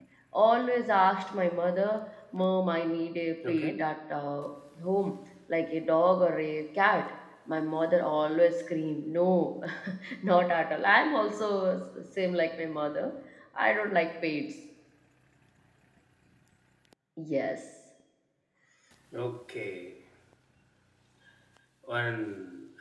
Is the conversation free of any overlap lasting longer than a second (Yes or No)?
Yes